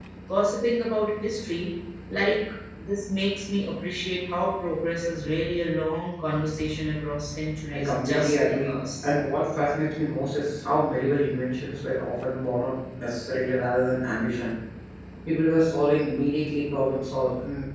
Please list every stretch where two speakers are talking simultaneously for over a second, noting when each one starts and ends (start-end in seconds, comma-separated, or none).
7.7-9.1